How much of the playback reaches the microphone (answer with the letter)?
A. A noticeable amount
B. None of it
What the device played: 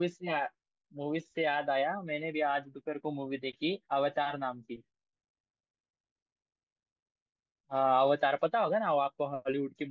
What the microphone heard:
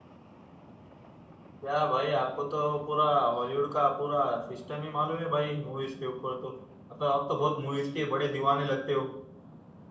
B